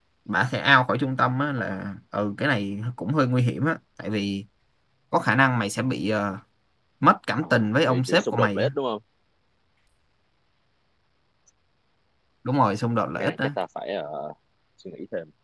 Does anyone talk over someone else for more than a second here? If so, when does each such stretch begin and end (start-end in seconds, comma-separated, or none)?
7.4-8.7